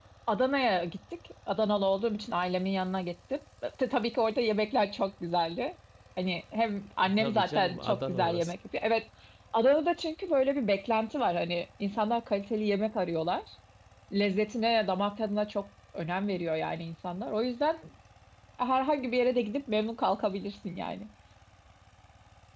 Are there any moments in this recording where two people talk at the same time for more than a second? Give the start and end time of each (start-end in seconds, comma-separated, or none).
7.0-8.5